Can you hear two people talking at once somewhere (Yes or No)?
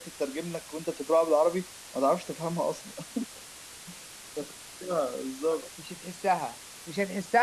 No